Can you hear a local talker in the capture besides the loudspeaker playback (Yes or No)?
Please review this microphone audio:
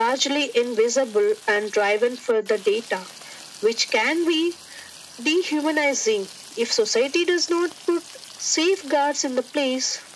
No